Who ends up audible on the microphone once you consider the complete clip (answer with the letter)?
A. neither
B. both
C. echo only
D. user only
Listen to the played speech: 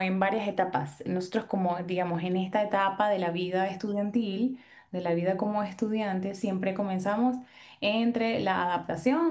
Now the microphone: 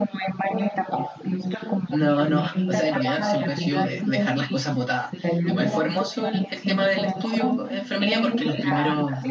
B